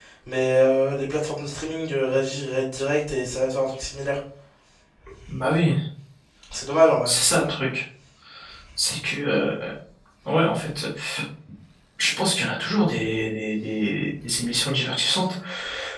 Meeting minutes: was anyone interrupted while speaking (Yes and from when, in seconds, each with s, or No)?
No